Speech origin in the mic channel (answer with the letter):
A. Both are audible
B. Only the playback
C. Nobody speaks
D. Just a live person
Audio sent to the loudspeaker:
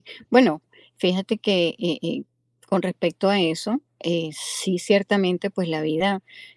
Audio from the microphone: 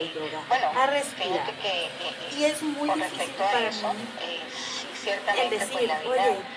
A